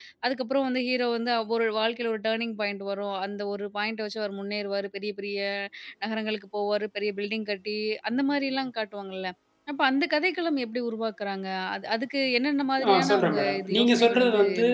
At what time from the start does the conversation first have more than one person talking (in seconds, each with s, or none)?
12.8 s